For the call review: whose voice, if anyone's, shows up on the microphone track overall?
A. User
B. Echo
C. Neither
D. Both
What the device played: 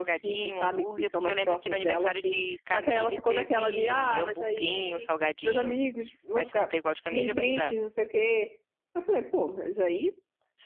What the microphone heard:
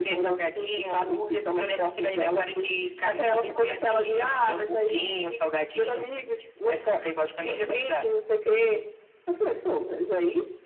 B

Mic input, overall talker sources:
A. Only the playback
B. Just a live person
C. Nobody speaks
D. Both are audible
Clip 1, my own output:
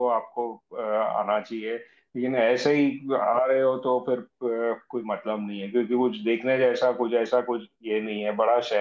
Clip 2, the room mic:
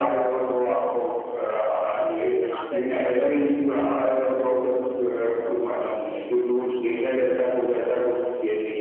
D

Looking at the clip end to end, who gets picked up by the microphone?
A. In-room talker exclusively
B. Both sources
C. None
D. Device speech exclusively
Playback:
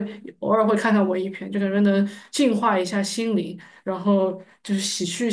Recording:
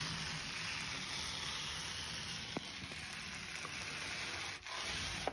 C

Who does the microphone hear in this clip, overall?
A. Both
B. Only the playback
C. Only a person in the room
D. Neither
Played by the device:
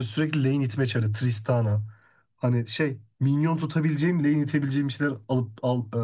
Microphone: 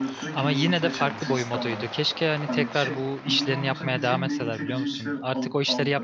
A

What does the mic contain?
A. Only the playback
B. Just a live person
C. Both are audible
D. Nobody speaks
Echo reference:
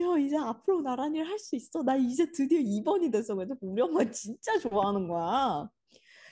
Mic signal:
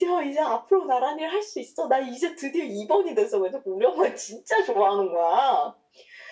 A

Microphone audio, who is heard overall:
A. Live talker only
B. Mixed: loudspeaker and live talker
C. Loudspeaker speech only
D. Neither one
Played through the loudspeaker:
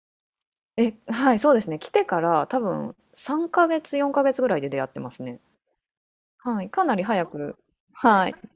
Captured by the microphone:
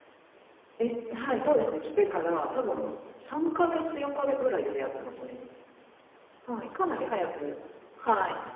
C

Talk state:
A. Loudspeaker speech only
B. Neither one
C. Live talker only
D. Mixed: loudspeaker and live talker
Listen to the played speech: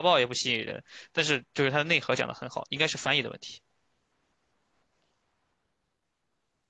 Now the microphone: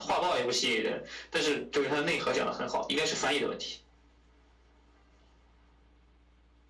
A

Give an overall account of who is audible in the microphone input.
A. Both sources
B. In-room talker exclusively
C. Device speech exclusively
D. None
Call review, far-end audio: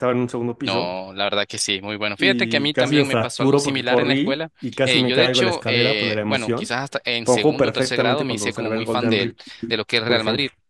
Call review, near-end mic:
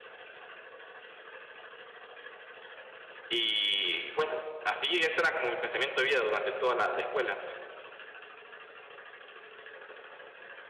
B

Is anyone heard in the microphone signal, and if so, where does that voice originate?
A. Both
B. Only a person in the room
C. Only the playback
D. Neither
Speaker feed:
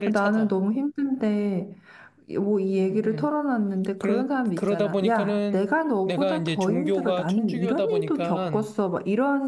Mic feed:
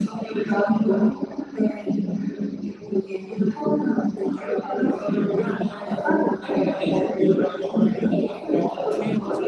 A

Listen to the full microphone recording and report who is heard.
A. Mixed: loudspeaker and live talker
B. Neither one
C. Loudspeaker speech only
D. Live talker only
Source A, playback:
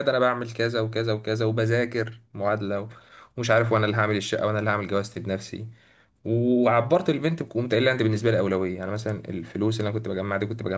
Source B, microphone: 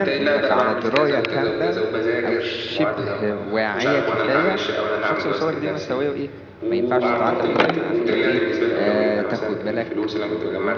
A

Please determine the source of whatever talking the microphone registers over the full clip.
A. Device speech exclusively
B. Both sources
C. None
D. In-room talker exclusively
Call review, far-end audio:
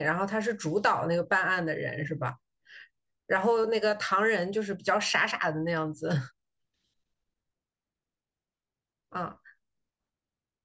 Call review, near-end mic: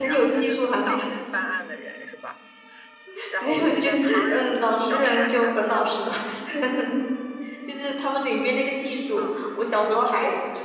B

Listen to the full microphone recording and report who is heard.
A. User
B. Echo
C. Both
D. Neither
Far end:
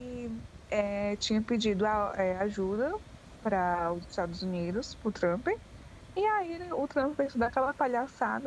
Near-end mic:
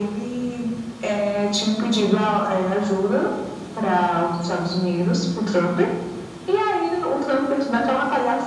B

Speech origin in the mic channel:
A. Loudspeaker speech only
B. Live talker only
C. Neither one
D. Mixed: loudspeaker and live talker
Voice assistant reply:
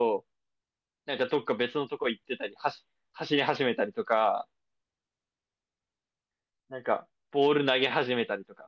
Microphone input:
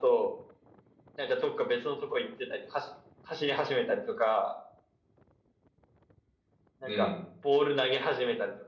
D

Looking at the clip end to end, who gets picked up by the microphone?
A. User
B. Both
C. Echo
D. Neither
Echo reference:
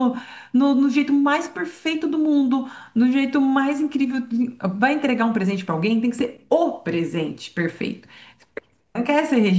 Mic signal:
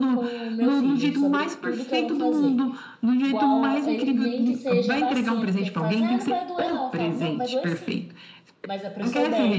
B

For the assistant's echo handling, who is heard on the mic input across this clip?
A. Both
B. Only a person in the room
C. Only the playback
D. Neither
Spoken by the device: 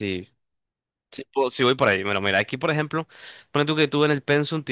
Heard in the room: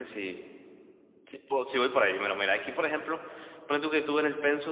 C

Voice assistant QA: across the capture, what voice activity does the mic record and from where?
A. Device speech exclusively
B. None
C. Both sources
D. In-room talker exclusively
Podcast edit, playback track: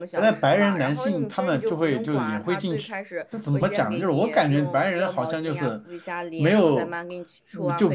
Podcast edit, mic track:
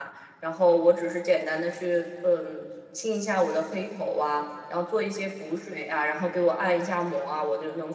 D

